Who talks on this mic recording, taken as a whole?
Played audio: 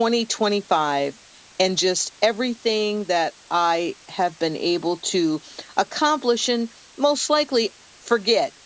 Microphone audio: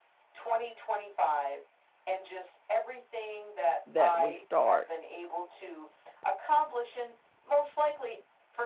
both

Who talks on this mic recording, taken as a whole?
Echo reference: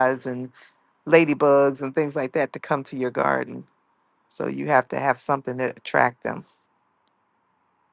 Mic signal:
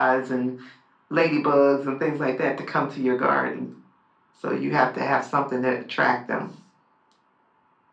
echo only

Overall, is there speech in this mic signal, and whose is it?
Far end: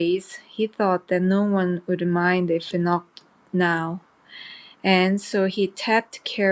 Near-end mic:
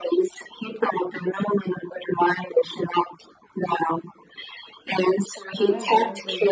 both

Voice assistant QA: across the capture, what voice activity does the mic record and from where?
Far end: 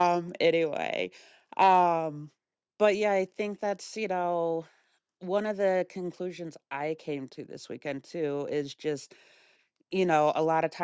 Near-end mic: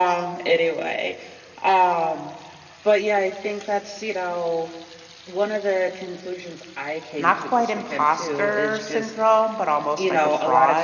both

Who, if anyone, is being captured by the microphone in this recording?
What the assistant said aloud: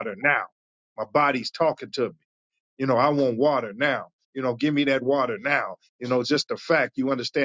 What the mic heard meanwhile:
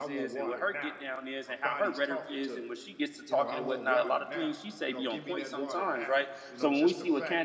both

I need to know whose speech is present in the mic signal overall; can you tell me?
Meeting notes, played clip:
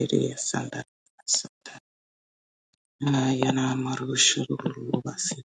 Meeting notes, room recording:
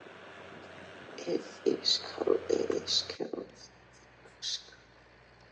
user only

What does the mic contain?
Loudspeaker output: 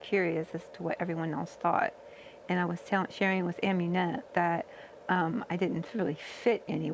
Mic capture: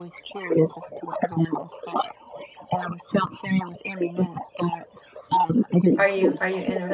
both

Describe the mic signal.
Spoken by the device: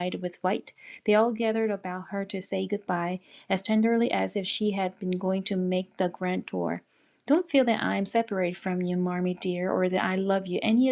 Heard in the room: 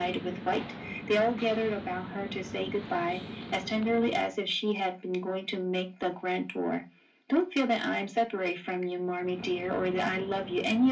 echo only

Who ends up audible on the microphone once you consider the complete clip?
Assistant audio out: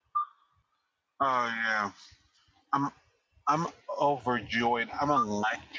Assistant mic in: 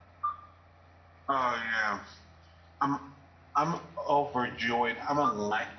echo only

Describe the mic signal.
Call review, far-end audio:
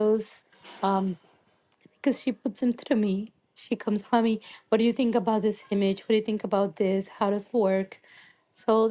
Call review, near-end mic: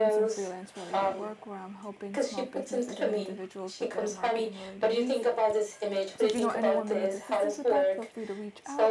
both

